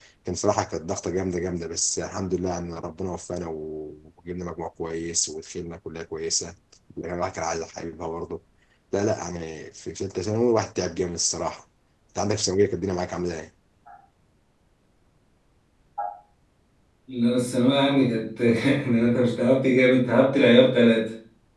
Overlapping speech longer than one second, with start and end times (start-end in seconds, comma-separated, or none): none